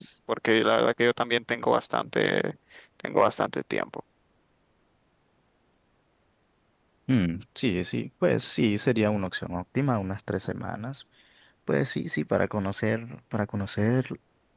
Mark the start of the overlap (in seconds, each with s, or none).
none